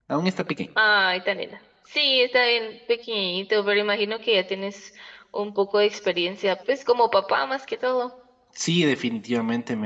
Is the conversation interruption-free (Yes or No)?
Yes